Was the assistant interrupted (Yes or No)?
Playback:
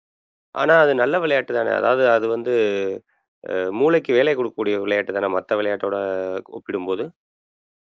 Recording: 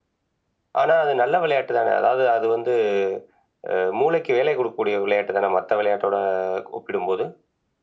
No